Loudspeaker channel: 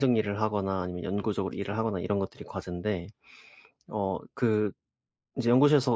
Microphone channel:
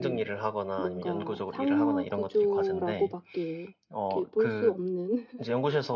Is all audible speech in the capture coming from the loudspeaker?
No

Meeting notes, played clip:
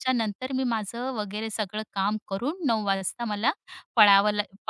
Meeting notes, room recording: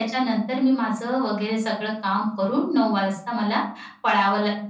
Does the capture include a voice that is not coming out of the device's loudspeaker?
No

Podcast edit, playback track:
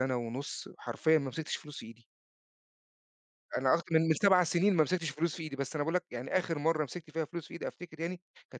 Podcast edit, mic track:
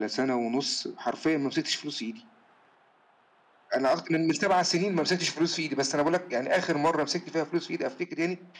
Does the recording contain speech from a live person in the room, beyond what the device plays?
No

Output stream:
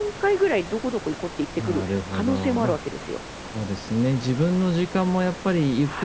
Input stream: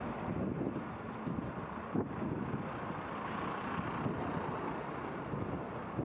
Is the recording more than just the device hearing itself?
No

